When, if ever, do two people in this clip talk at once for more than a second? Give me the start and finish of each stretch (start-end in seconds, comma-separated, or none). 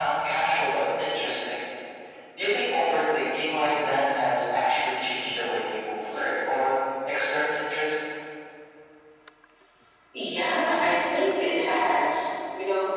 none